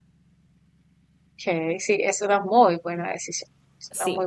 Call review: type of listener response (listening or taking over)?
taking over